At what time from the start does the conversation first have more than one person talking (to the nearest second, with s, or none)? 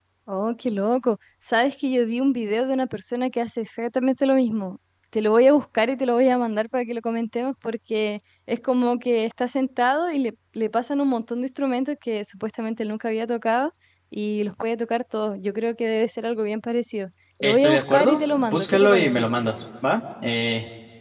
17 s